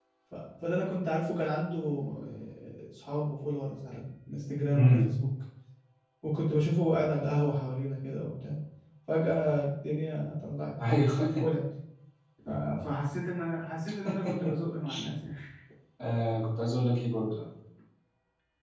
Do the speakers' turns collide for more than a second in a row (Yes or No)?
No